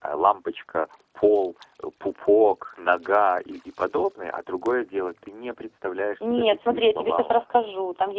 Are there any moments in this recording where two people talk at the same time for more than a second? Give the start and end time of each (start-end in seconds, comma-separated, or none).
6.2-7.4